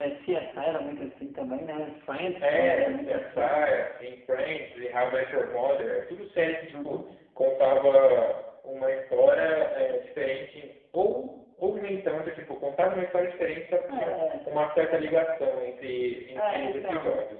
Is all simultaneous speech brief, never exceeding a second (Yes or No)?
No